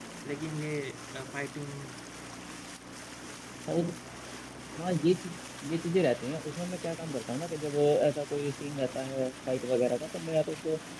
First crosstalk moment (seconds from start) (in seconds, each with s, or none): none